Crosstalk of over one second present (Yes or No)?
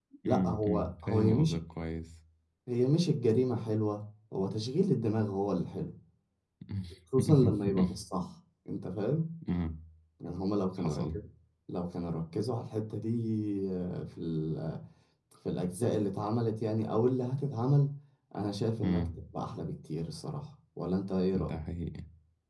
Yes